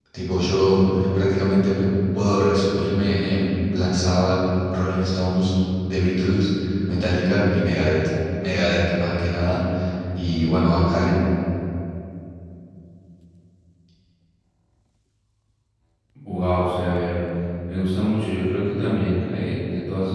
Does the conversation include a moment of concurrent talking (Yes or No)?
No